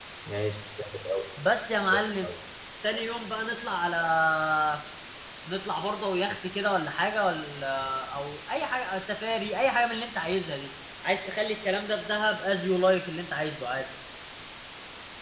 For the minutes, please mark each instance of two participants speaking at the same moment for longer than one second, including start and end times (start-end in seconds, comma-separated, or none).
none